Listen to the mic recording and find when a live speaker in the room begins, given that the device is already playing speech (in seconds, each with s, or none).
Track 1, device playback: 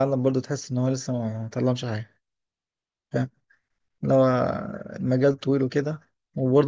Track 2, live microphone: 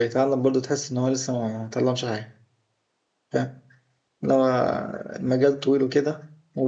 none